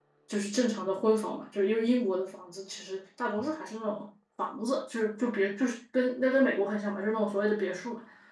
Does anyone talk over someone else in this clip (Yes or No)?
No